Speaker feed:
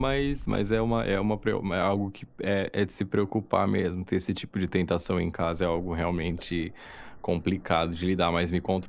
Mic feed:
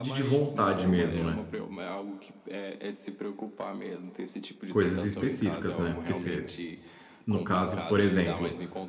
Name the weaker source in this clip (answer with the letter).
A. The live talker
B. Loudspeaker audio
B